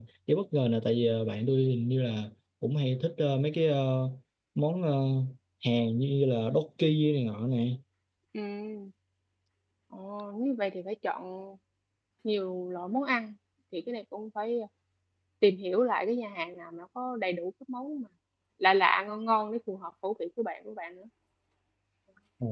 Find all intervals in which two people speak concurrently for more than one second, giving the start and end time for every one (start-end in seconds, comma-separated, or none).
none